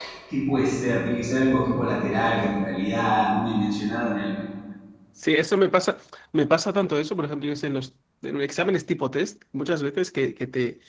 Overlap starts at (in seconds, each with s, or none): none